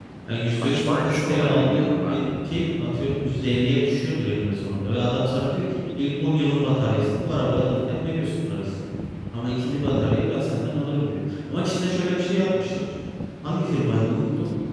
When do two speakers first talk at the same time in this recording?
0.5 s

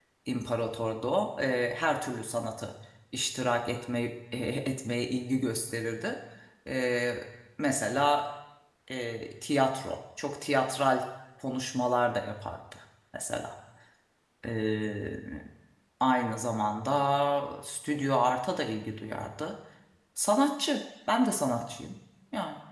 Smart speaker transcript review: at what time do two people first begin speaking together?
none

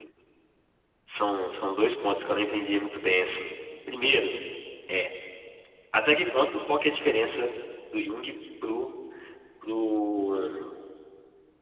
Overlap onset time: none

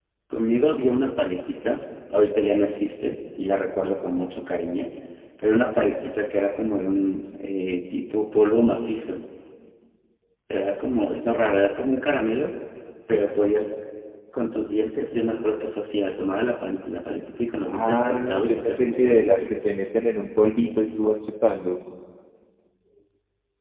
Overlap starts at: 17.7 s

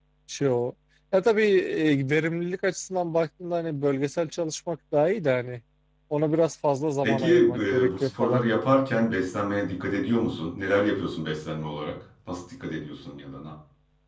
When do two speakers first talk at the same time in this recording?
7.0 s

